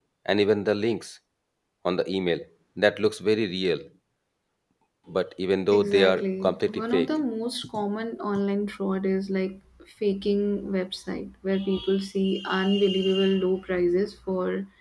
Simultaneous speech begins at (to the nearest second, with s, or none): 6 s